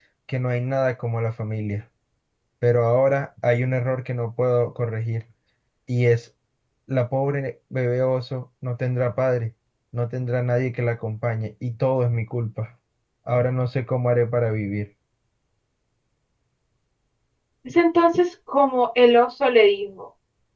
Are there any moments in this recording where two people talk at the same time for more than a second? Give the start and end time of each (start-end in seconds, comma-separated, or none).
none